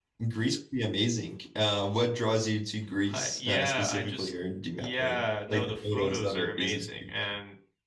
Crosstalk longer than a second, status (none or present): present